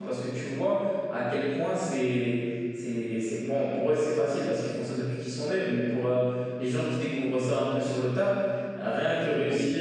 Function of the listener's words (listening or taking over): listening